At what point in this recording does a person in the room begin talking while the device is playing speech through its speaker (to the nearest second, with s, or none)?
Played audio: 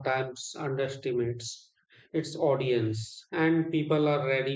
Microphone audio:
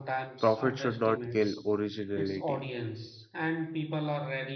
0 s